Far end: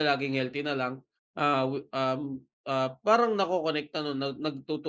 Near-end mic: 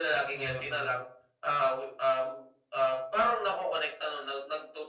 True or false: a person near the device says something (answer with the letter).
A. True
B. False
A